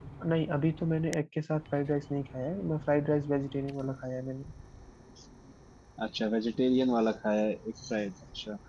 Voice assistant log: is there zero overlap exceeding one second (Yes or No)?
Yes